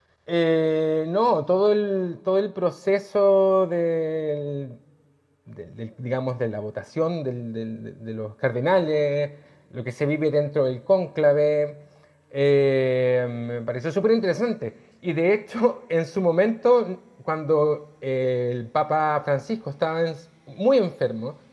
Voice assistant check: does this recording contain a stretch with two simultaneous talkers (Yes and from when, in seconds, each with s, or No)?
No